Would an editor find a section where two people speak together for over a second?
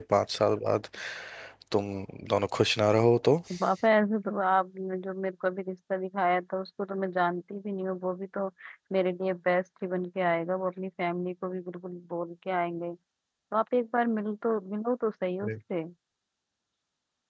No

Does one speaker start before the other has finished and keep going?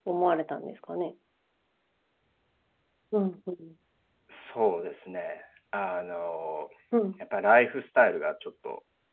No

